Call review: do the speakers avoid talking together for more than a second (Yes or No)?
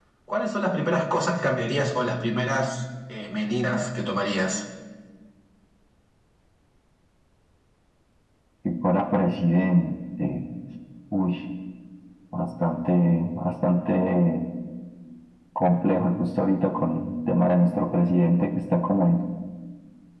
Yes